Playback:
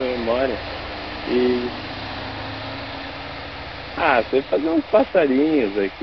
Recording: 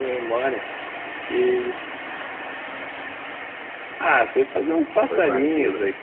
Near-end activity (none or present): present